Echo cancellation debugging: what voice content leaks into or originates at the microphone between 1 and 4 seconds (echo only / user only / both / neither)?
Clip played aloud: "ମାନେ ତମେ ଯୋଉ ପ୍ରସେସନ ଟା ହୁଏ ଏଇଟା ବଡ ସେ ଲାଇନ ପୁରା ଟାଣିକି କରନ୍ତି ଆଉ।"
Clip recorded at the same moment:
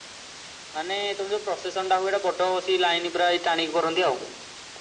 echo only